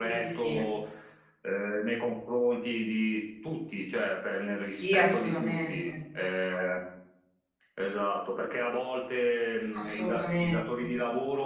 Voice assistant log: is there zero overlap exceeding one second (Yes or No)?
No